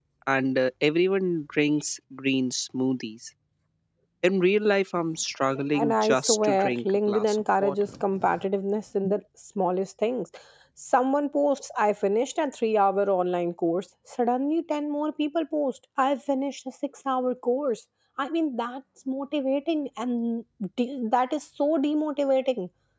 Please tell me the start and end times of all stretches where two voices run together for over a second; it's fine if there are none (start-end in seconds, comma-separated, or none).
5.7-7.8